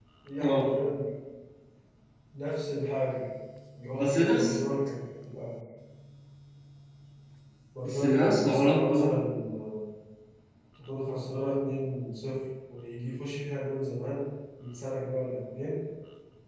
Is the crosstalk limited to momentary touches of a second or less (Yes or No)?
No